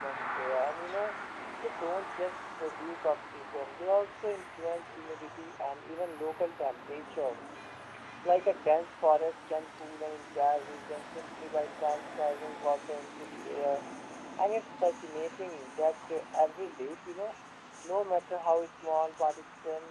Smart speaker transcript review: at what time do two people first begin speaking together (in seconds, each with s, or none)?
none